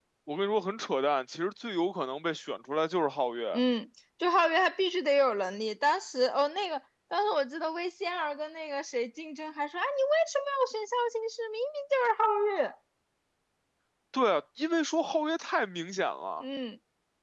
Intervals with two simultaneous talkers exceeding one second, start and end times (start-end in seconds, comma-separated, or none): none